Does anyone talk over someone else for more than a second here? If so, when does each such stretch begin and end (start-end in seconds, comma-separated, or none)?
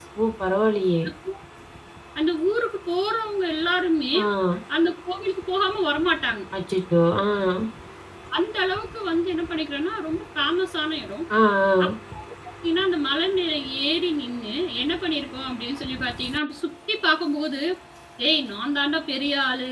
none